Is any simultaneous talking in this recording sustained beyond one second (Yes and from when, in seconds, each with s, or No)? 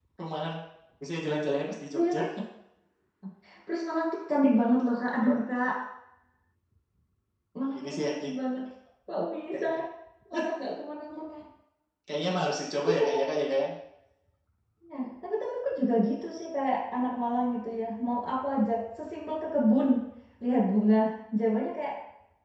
No